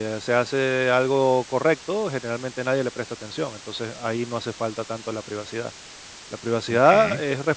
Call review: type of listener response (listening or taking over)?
listening